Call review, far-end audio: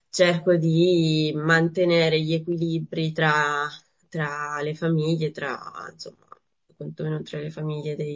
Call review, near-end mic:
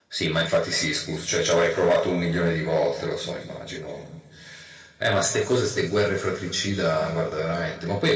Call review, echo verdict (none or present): none